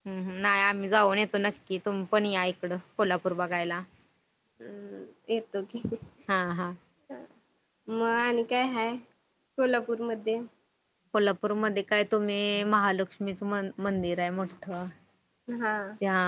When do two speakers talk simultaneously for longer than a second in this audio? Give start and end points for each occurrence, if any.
none

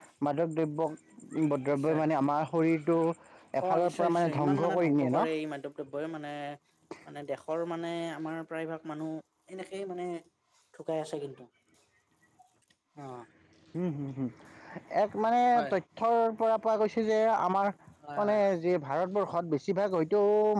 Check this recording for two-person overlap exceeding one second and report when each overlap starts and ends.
3.8-5.1

